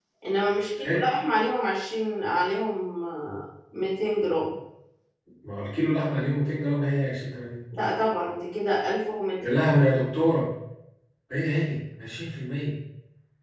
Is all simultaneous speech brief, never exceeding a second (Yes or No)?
Yes